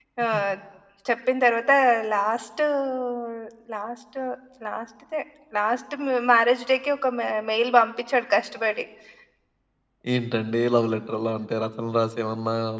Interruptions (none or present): none